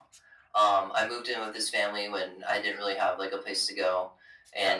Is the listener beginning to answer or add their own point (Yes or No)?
No